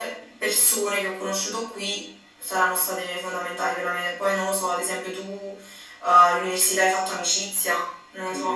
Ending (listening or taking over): taking over